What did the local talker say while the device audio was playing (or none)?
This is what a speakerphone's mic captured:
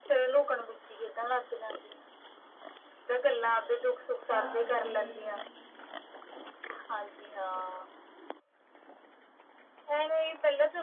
ਹਾਂਜੀ